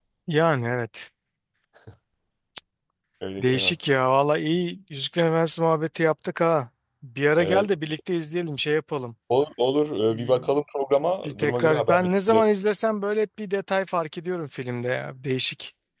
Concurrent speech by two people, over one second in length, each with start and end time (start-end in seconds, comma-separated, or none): 11.2-12.4